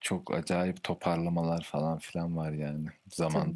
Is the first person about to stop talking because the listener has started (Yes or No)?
Yes